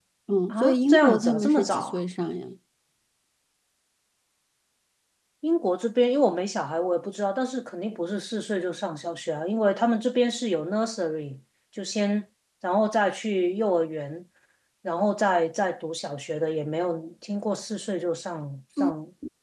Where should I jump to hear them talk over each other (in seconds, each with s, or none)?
0.5 s